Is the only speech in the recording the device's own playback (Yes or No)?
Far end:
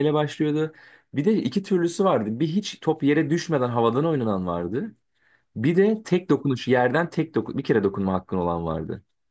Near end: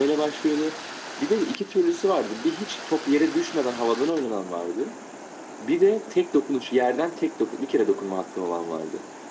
Yes